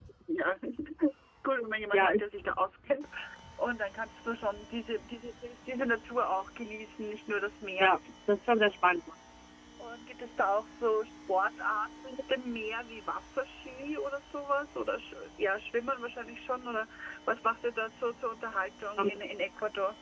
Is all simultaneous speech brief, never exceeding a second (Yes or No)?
Yes